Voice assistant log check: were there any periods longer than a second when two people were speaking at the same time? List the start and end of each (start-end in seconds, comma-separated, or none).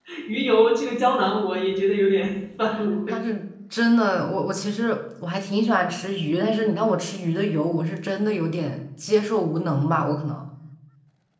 none